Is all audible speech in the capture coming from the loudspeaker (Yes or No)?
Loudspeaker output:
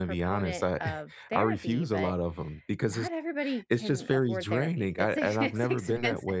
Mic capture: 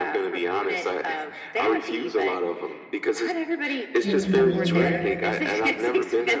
No